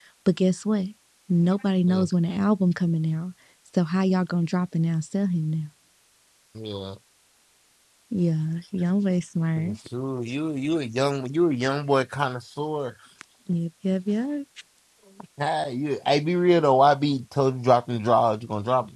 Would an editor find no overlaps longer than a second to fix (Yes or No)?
Yes